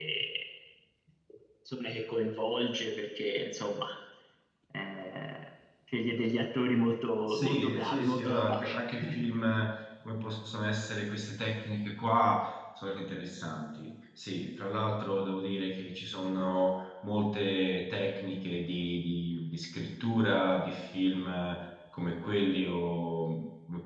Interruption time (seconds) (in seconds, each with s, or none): 7.3 s